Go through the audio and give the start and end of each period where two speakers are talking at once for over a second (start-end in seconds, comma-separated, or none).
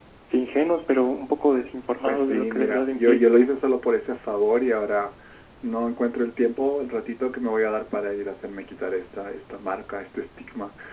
2.1-3.3